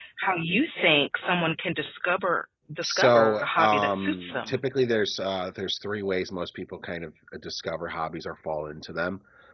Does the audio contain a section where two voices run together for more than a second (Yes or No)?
Yes